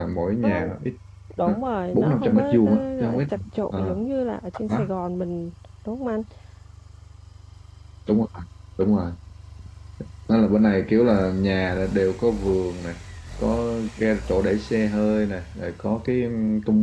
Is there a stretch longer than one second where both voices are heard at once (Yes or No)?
Yes